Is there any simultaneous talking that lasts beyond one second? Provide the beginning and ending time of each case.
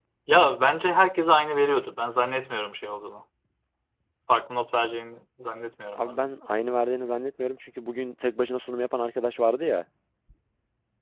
none

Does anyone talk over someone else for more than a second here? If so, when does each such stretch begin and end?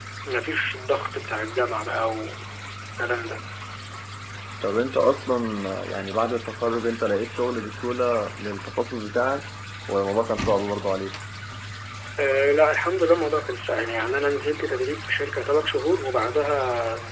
none

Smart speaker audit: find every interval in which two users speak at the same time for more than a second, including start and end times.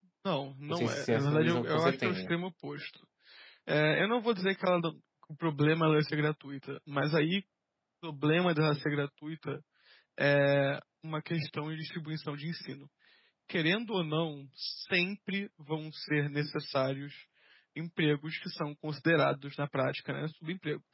0.7-2.3

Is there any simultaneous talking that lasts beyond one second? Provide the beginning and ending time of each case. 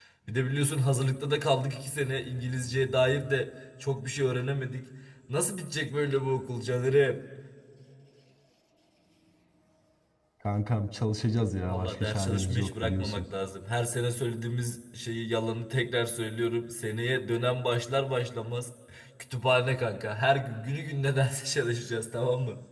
11.7-13.2

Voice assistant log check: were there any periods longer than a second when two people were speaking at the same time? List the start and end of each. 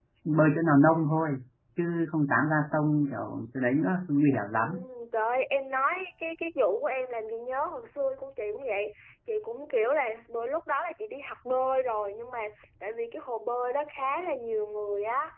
none

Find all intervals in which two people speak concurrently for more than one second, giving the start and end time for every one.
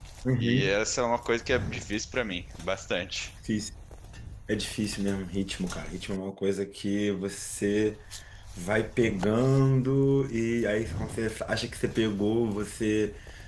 none

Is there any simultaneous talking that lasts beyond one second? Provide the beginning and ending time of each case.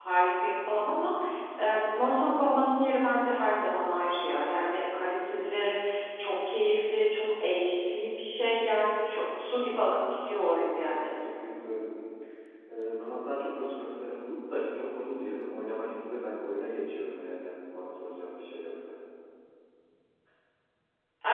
none

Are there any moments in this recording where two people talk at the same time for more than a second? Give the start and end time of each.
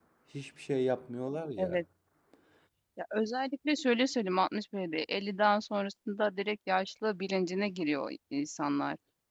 none

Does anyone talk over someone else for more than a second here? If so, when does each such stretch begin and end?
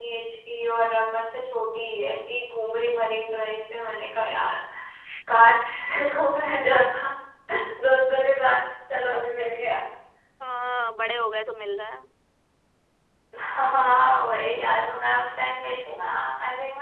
none

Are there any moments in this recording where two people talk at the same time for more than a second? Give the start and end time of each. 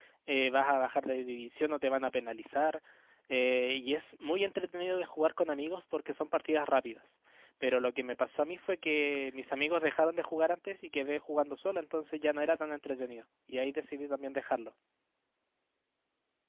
none

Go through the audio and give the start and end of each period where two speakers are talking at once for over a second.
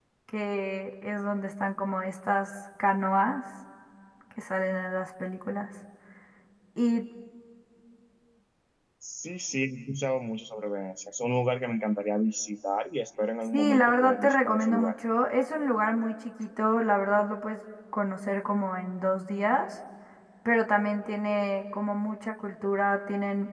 13.5-14.9

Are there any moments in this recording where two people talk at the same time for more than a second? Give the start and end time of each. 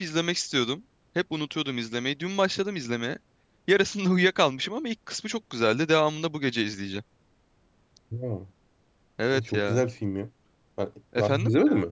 none

